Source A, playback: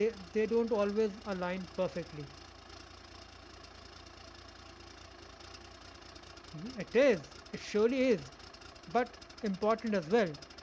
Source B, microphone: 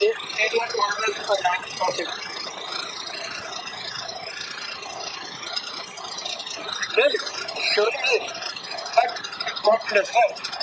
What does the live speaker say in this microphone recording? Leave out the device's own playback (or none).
none